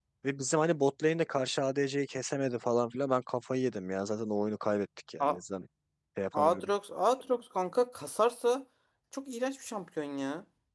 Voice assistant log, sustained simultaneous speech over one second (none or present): none